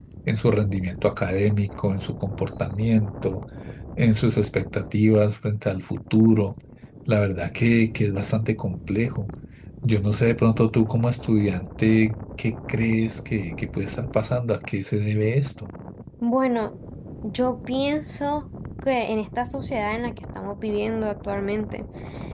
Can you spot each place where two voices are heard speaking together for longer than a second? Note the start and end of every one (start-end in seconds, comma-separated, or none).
none